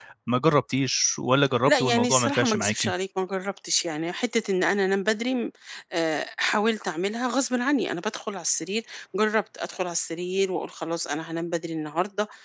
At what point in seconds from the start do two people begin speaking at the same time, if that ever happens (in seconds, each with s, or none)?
1.6 s